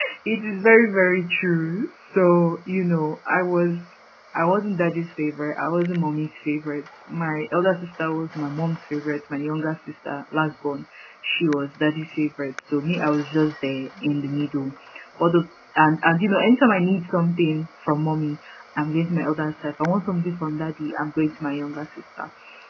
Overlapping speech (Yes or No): No